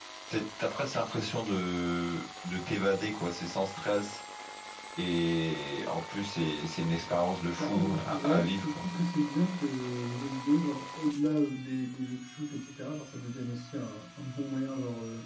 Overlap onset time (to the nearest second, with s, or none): 8 s